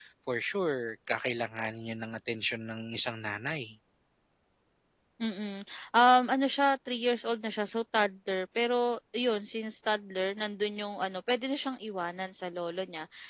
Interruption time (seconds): none

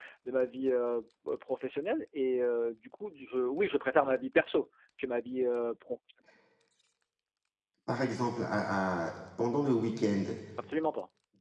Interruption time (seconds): none

